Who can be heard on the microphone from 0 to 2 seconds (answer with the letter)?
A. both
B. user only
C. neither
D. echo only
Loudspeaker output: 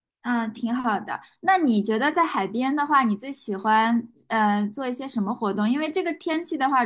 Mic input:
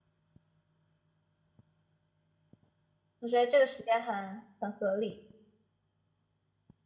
C